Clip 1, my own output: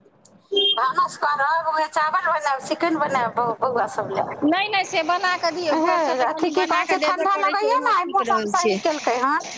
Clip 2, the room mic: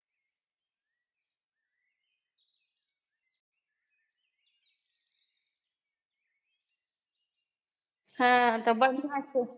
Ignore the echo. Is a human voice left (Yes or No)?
Yes